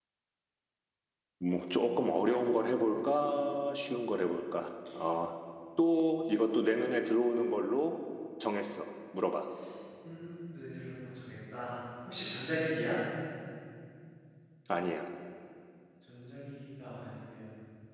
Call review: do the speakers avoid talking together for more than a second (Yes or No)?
Yes